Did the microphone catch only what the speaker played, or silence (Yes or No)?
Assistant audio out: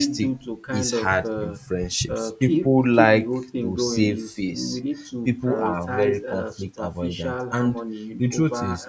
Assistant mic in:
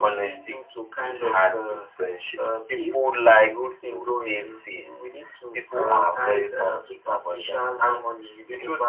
Yes